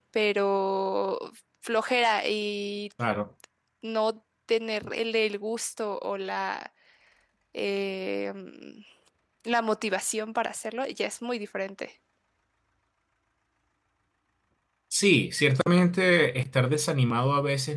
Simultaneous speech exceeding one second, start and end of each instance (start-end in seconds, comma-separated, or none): none